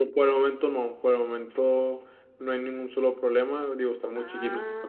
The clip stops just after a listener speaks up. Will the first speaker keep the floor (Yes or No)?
Yes